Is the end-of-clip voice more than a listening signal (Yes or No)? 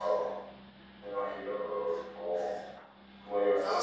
Yes